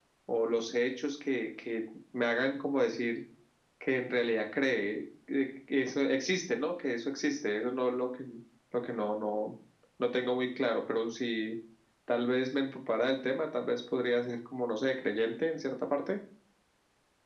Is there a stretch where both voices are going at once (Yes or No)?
No